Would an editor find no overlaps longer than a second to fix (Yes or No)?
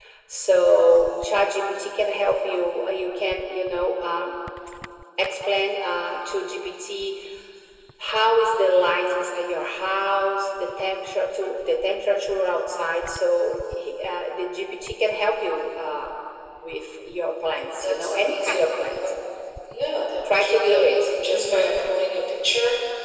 No